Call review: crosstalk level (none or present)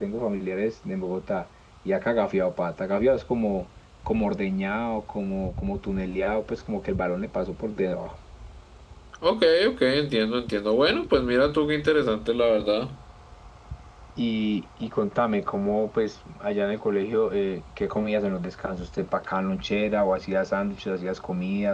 none